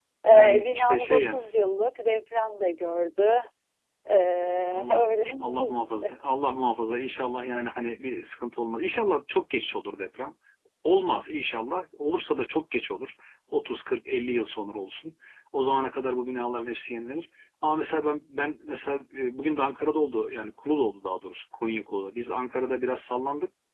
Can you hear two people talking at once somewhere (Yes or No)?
Yes